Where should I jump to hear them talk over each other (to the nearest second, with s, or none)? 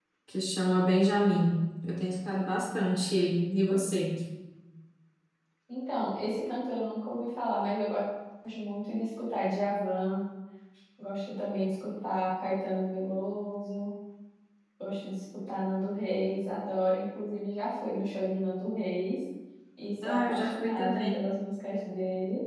20 s